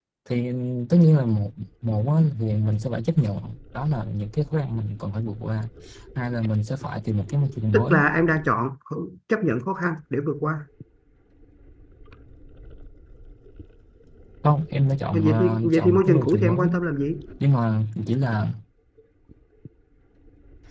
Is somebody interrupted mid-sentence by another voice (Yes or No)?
Yes